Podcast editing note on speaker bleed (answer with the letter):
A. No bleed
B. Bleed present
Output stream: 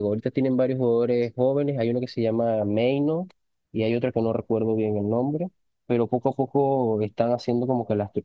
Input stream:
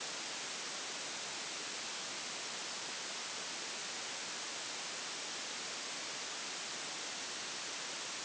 A